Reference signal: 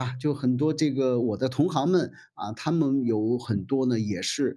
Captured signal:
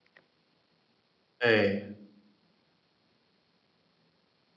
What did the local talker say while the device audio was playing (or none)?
哎。